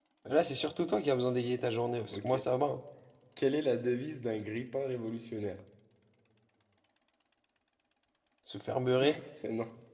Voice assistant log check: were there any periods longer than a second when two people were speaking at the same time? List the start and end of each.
none

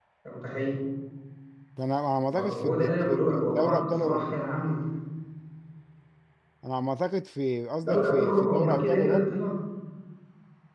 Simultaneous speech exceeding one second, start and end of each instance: 2.3-4.4, 7.8-9.4

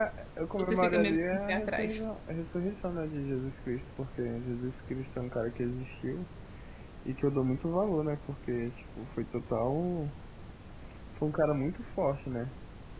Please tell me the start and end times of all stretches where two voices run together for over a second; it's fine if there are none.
0.6-2.0

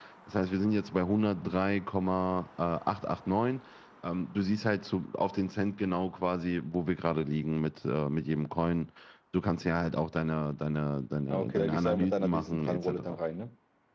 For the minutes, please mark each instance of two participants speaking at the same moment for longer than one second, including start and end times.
11.3-13.2

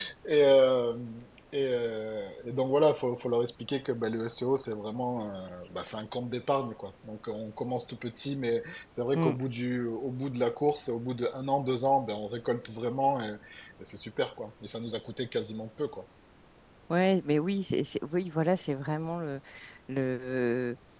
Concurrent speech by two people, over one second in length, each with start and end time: none

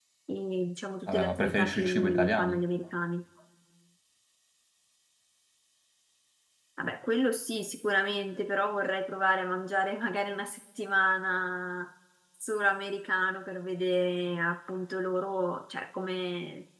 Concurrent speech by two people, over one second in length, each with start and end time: 1.1-2.6

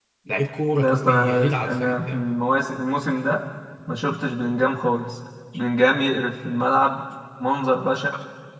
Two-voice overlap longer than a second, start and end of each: 0.8-2.3

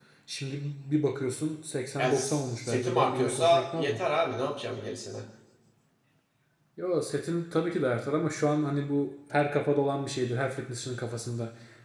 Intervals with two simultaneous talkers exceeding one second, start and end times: 2.0-4.0

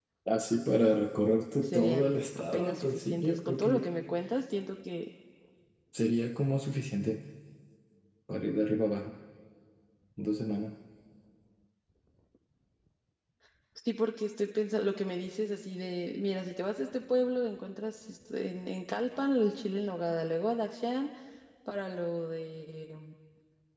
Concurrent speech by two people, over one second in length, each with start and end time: 1.6-3.9

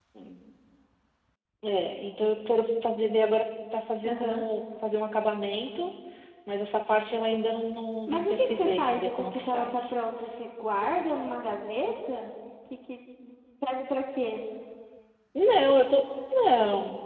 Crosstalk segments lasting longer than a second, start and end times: 8.1-9.9

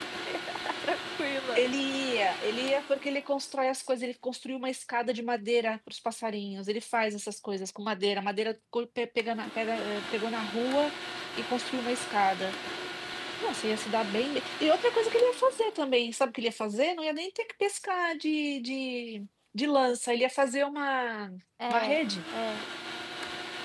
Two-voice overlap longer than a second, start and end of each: none

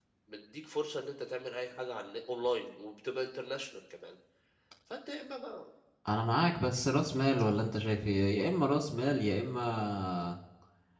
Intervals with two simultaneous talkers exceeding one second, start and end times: none

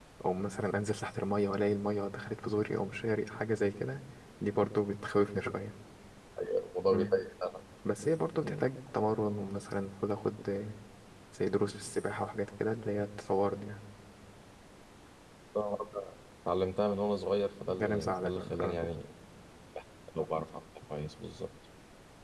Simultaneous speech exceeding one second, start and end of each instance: 17.7-18.9

